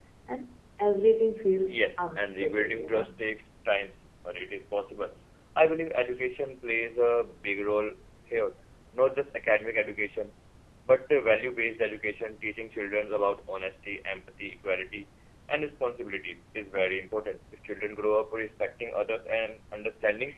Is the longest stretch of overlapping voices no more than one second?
No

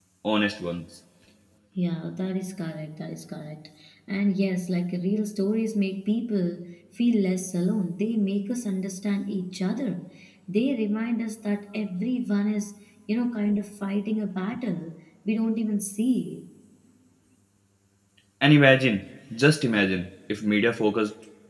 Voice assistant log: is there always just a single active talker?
Yes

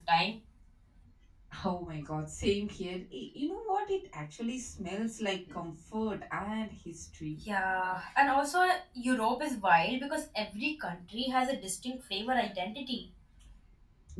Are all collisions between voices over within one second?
Yes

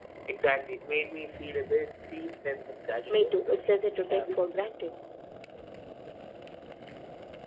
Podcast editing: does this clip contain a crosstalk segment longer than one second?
Yes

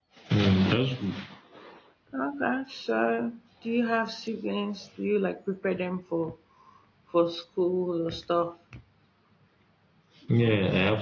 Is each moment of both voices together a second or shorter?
Yes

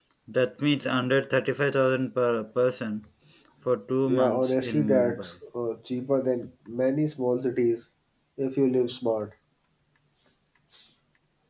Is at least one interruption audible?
Yes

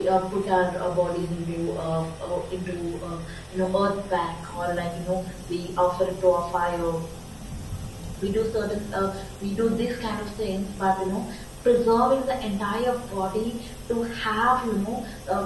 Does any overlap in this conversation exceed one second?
No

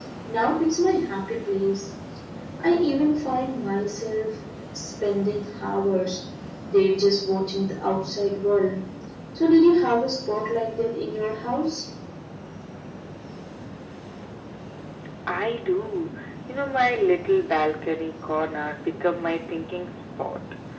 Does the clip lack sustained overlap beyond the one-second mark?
Yes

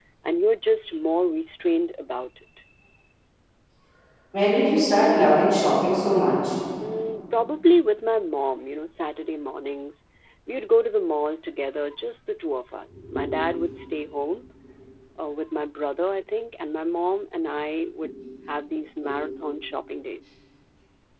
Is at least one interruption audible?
No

